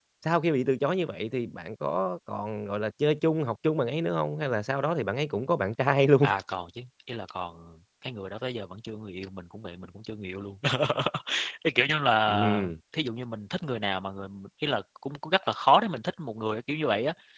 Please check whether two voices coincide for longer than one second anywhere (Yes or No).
No